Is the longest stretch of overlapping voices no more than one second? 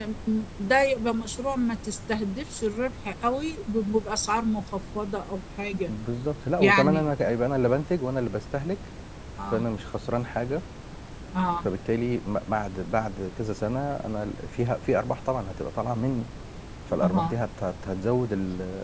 Yes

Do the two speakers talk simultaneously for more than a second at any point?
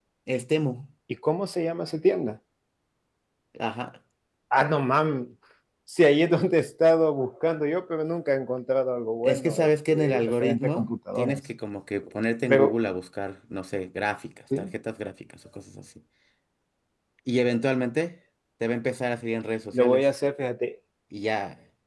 Yes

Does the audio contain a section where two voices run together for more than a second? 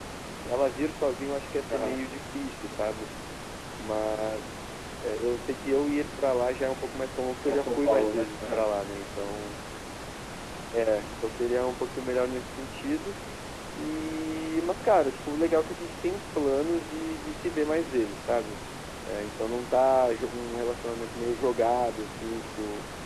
Yes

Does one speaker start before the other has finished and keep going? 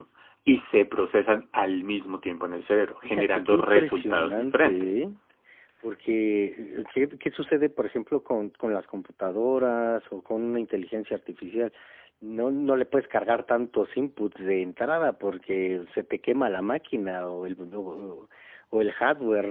Yes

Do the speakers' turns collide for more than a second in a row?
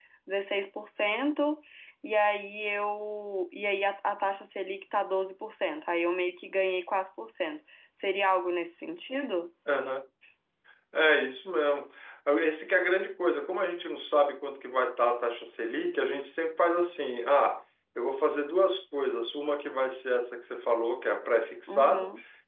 No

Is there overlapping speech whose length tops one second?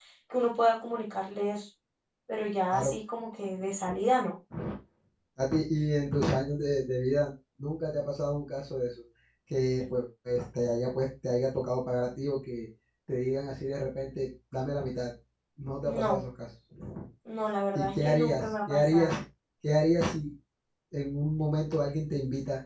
Yes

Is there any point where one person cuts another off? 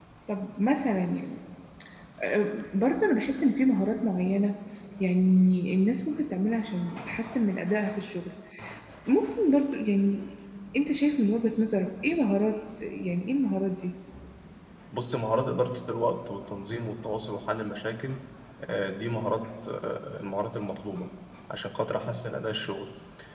No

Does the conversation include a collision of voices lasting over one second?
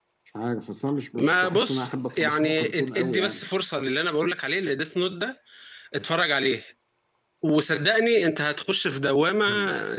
Yes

